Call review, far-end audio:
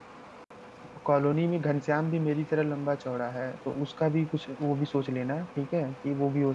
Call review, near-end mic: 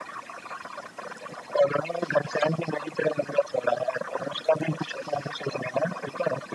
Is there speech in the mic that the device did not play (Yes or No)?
No